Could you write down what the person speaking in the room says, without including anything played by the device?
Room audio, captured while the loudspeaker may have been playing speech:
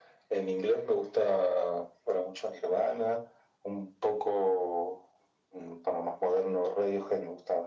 none

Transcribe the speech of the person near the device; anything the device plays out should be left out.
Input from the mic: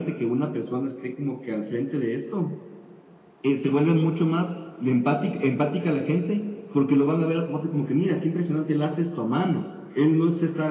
none

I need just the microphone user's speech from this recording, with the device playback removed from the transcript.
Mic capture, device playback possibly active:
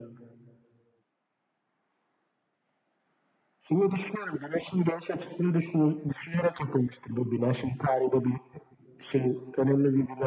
none

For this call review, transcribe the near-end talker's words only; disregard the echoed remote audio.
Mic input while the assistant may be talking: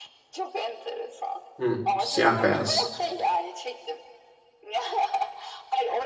Hı, siyah beyaz,

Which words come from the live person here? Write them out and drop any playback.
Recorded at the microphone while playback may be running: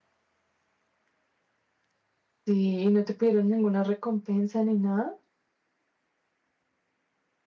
Sí, y no te pidieron ninguna recompensa ni nada.

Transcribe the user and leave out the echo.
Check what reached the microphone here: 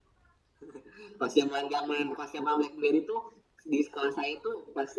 none

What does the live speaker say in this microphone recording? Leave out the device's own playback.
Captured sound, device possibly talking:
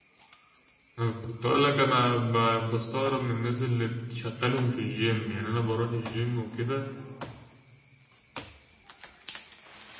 انا كنت اقول لك انا ب- بستغرب من الناس اللي بتشغلهم في الجيم يعني انا بروح الجيم وكده

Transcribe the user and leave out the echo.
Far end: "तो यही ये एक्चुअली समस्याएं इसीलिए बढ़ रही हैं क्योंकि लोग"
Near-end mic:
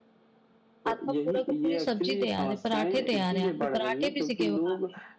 आपका पूरा का पूरी सब्जी तैयार है पराठे तैयार है आपके पराठे भी सिके हुए हैं

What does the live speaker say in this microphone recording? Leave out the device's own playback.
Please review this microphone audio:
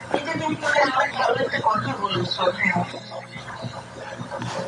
none

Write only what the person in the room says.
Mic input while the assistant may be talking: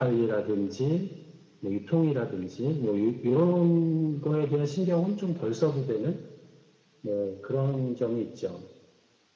none

